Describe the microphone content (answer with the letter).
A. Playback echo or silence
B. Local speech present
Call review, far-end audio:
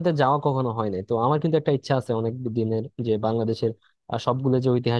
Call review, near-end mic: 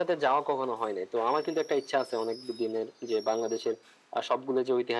A